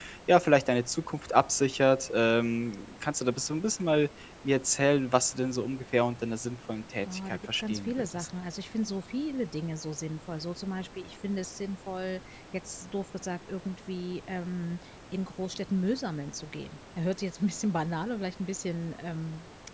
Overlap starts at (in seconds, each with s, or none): 7.0 s